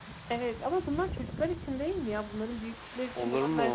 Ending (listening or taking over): taking over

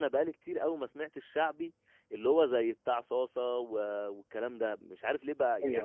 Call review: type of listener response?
listening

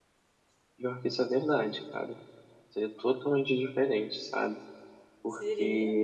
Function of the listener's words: listening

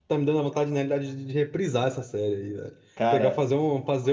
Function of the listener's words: listening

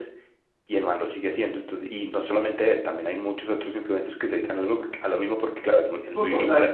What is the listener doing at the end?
taking over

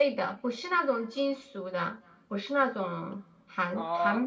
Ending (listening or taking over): taking over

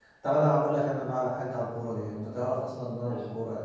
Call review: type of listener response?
listening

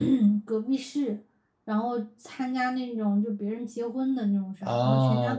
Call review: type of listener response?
taking over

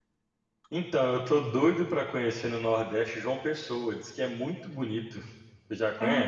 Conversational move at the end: taking over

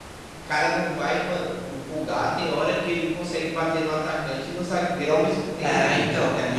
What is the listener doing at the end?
taking over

